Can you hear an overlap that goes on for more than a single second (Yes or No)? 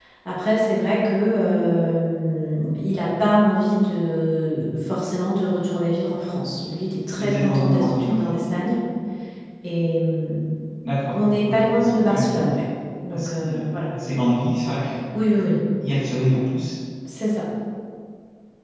Yes